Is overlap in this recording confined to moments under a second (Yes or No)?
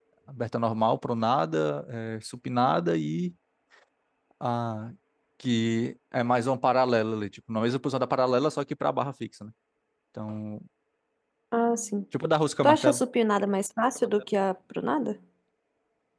Yes